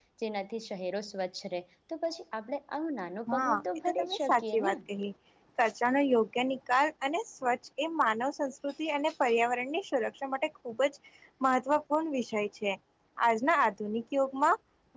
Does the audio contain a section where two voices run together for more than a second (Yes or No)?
Yes